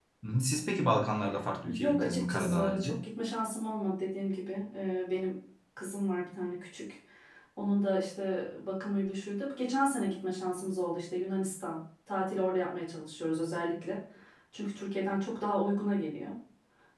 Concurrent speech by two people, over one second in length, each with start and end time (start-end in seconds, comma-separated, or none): 1.6-3.0